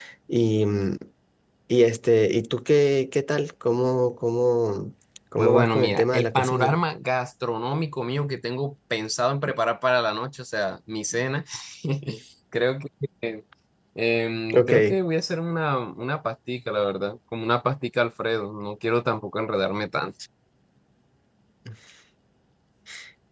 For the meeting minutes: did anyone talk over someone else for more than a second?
Yes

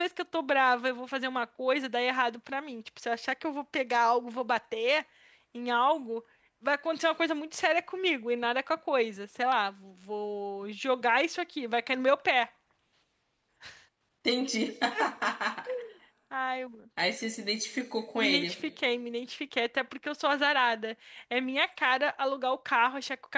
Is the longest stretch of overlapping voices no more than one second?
Yes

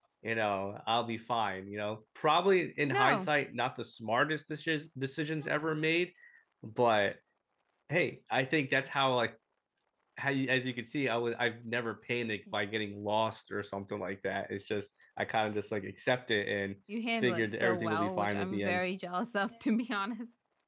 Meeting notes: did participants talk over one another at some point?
Yes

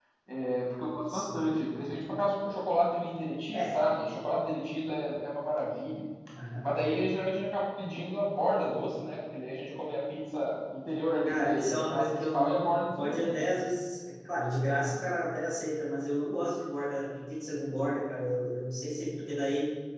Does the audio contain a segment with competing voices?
Yes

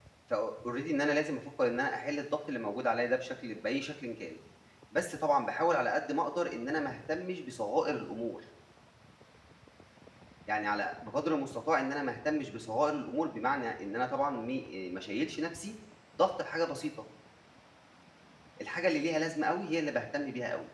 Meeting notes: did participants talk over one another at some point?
No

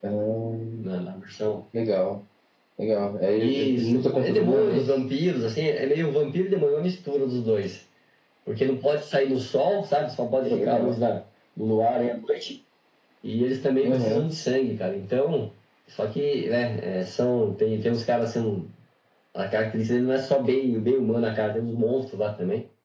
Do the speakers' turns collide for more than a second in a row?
Yes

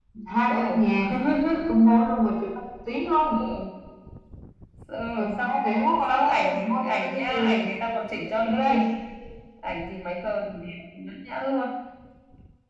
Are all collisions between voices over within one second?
No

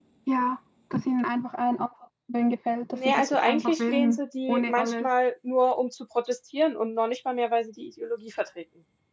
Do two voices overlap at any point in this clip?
Yes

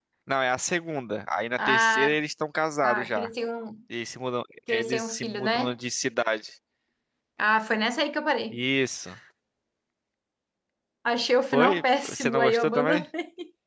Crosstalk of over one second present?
Yes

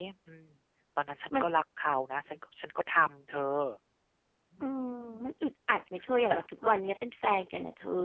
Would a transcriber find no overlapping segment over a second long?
Yes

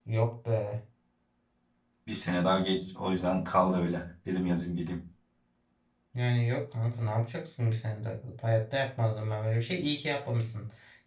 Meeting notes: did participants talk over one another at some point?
No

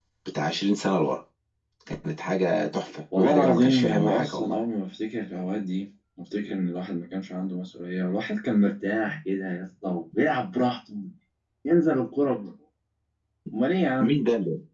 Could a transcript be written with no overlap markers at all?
No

